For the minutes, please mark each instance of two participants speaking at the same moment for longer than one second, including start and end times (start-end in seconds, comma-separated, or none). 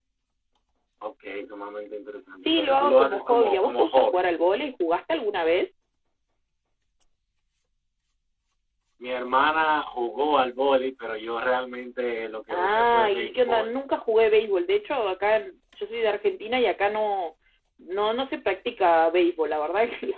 2.5-4.2, 12.5-13.7